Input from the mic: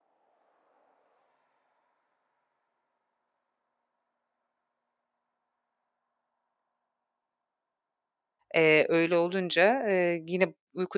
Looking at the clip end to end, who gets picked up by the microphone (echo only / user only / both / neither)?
user only